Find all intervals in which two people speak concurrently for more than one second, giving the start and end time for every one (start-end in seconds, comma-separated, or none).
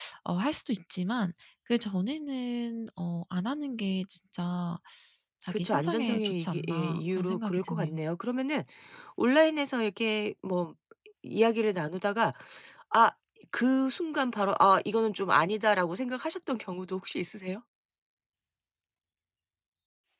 5.5-8.0